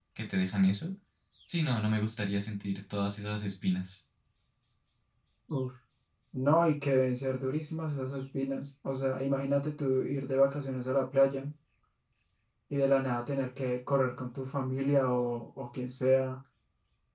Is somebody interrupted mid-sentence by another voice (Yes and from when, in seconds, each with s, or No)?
No